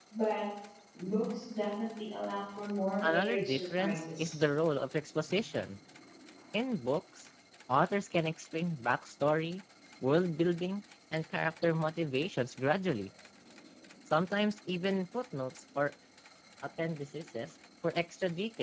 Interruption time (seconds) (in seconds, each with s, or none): 3.0 s